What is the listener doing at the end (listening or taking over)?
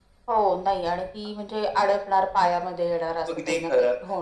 taking over